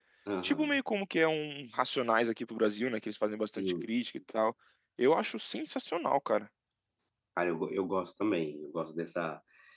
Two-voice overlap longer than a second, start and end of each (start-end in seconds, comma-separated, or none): none